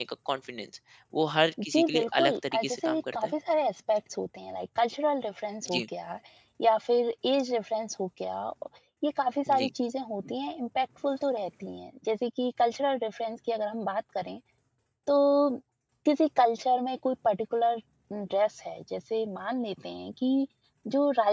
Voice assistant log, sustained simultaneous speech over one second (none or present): present